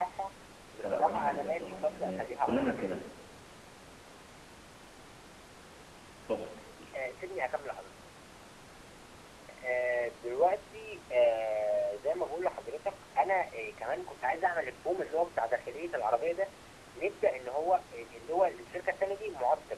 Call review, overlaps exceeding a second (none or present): present